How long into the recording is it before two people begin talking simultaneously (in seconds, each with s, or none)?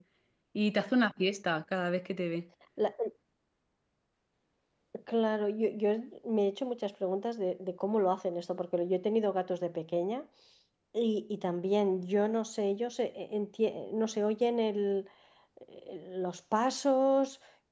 none